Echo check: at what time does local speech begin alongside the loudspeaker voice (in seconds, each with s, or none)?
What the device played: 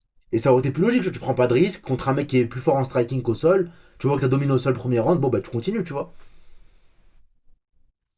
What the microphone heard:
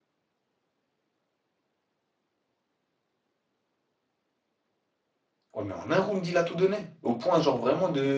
5.5 s